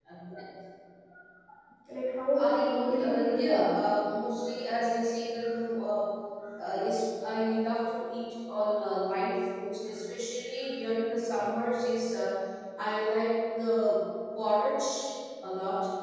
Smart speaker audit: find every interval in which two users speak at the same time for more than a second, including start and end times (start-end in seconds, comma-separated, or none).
2.3-3.6